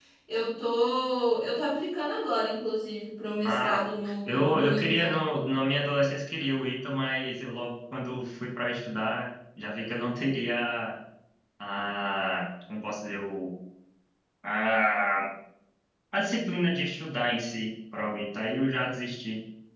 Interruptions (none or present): present